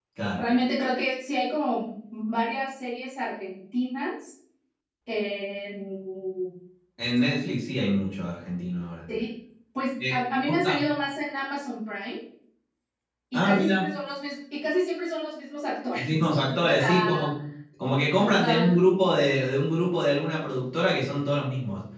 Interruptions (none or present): present